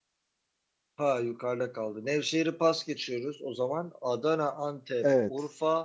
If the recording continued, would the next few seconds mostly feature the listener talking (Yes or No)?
No